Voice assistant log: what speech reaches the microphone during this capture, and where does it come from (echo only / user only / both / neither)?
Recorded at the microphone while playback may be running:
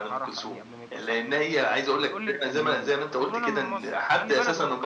both